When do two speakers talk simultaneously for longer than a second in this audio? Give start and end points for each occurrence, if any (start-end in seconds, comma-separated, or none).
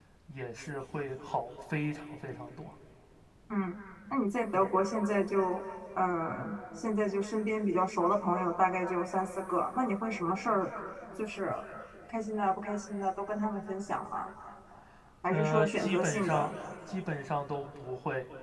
15.3-16.5